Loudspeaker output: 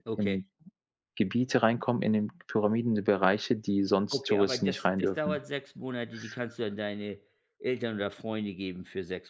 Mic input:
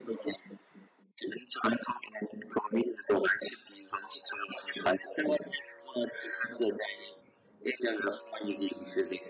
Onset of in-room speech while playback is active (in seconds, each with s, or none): none